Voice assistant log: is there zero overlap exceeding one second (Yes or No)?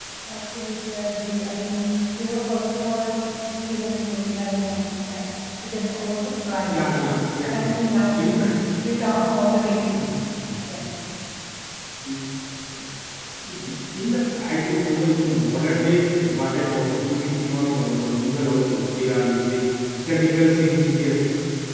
Yes